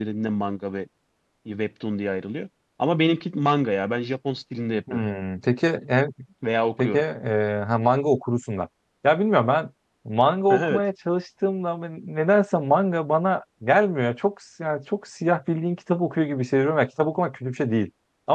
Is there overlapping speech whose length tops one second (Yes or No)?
No